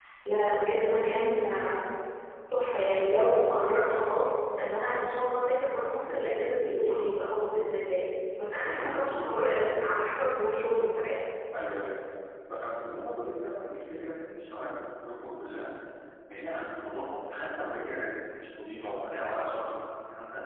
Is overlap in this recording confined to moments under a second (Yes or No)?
Yes